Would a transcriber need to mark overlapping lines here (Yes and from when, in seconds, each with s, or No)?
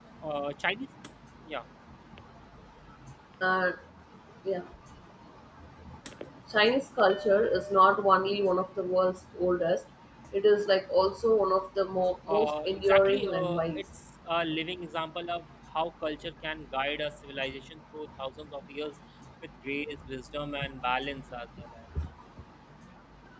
Yes, from 12.3 s